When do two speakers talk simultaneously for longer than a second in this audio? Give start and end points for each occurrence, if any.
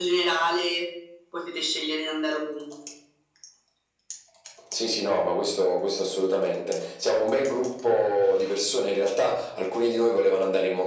none

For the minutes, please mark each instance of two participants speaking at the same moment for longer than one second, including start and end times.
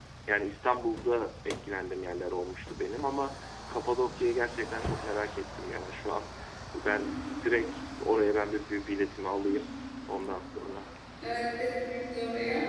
none

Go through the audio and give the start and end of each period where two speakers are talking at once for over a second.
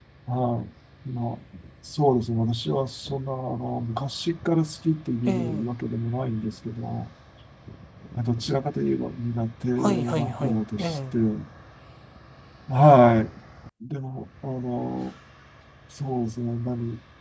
9.8-11.2

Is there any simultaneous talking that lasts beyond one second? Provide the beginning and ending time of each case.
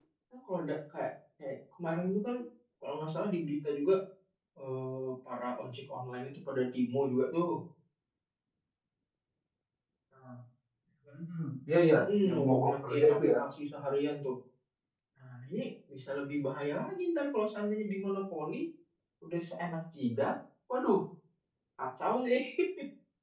12.0-13.4

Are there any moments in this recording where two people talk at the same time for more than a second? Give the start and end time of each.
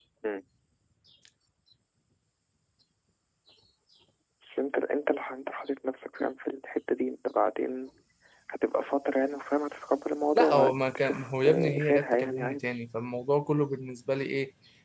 10.3-12.7

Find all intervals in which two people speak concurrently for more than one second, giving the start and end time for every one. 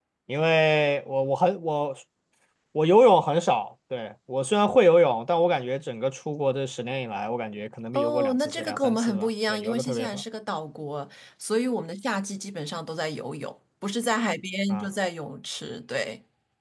7.9-10.2

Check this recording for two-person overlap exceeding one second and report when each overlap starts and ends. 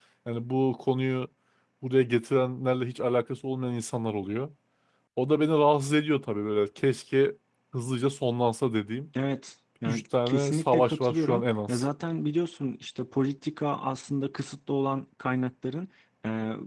9.8-11.8

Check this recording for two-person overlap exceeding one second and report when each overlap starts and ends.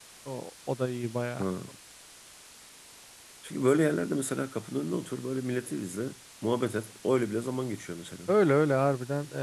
none

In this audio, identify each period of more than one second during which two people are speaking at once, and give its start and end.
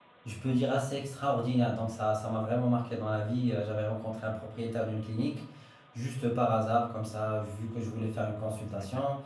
none

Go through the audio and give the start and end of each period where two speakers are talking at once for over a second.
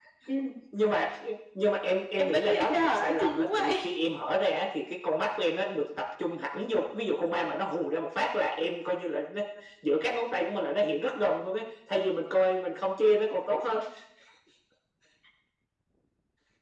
2.2-3.7

